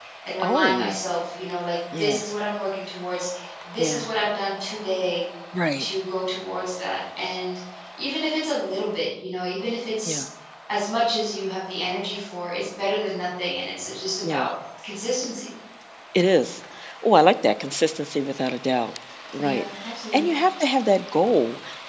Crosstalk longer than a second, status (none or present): none